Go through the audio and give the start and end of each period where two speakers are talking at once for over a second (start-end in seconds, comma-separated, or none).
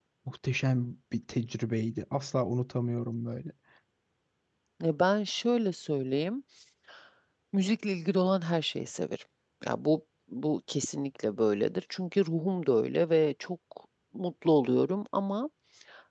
none